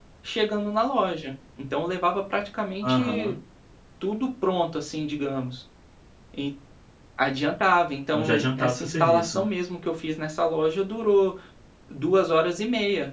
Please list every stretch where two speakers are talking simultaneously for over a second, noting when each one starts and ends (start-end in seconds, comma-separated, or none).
8.1-9.4